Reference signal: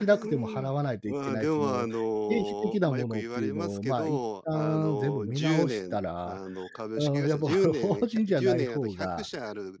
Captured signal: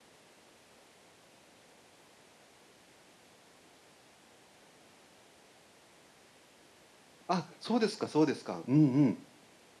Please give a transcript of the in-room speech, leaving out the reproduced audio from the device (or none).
あ、そうですかそうですか。うんうん。